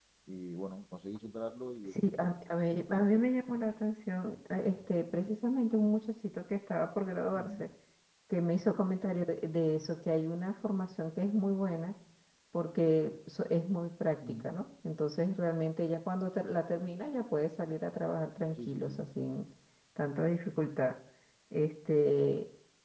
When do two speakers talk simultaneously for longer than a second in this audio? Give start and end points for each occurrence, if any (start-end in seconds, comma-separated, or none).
none